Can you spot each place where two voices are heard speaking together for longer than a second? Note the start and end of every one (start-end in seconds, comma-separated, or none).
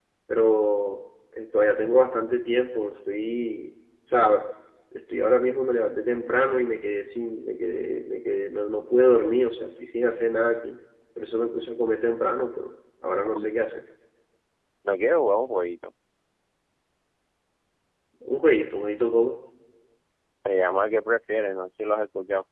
none